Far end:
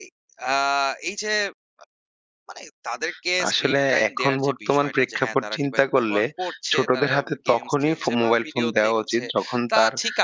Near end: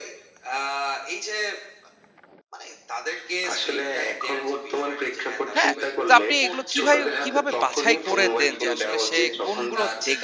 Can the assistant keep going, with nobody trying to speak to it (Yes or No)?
No